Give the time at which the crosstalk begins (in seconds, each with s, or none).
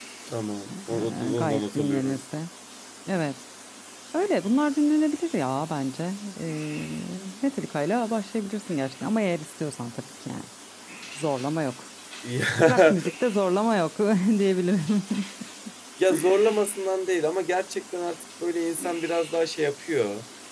0.7 s